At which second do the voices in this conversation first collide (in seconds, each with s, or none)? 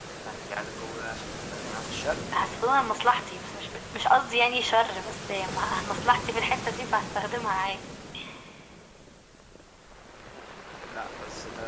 none